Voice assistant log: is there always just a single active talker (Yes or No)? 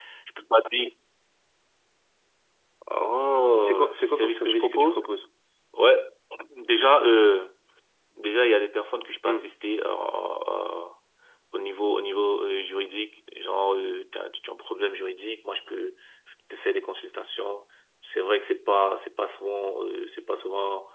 No